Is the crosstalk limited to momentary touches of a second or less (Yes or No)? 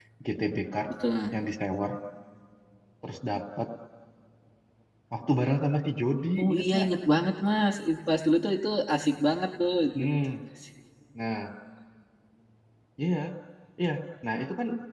Yes